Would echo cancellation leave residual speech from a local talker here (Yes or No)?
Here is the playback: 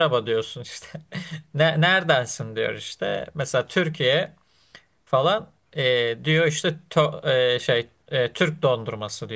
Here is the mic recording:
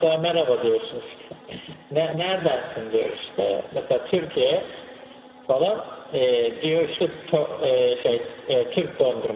No